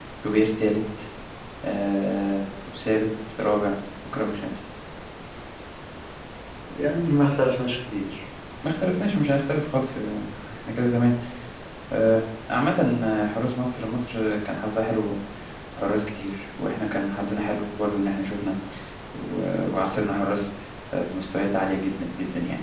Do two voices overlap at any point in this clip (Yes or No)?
No